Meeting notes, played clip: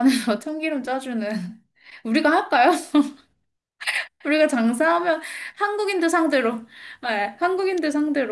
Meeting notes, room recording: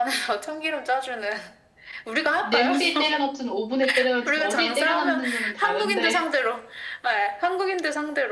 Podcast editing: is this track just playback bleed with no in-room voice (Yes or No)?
No